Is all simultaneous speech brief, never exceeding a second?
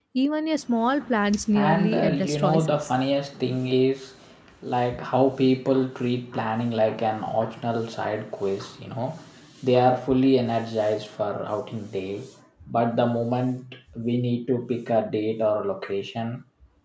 No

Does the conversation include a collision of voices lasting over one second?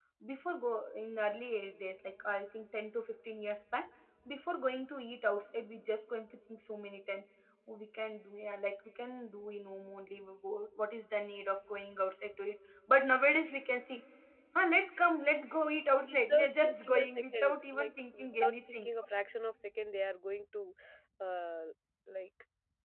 Yes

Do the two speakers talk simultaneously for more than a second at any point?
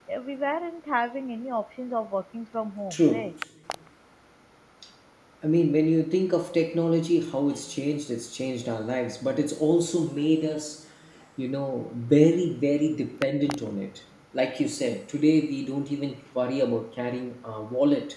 No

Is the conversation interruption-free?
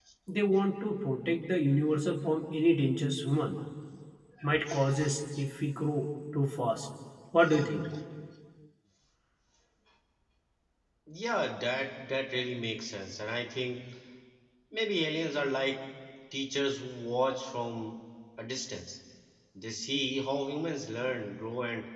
Yes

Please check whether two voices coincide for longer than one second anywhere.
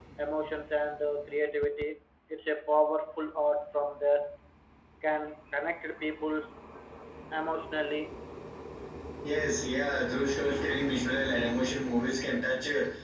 No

